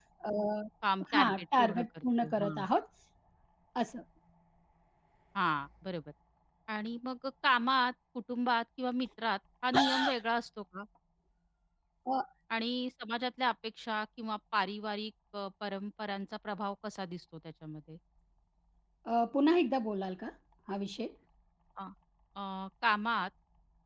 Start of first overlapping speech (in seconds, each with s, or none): 1.1 s